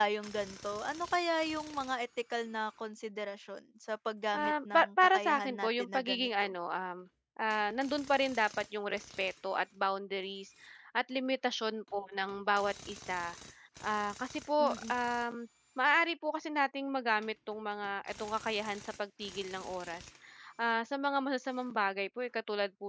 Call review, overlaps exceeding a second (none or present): present